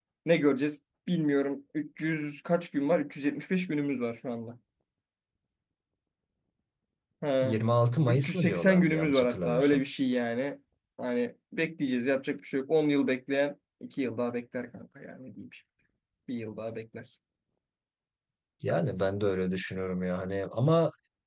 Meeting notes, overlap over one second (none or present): present